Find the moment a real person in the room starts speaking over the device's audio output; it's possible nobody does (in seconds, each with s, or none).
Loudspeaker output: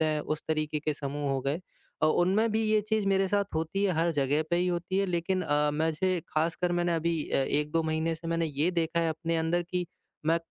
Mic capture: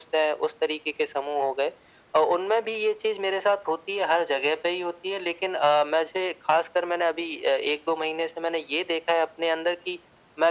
none